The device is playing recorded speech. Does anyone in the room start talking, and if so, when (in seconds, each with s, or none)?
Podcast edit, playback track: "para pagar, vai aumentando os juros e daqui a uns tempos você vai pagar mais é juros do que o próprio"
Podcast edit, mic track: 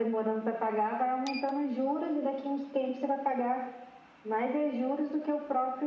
none